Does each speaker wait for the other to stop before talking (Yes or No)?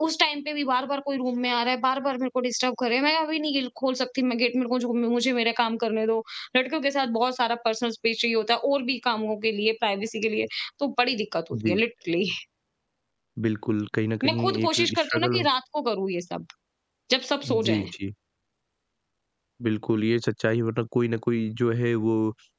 No